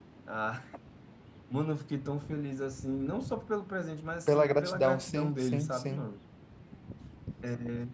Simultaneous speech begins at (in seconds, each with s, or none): 4.3 s